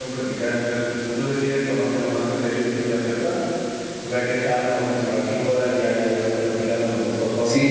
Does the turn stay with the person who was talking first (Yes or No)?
No